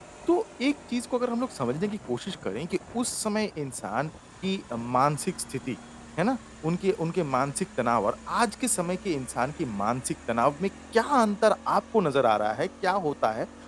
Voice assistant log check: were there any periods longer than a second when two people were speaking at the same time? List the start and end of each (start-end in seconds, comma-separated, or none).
none